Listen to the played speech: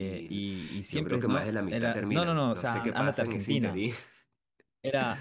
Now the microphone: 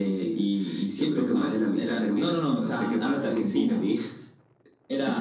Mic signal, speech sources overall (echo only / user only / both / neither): echo only